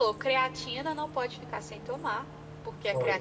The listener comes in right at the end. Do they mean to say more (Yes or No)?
No